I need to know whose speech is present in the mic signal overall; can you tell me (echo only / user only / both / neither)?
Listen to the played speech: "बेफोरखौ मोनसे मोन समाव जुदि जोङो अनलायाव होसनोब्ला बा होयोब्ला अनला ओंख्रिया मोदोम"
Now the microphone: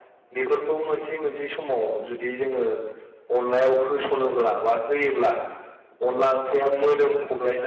both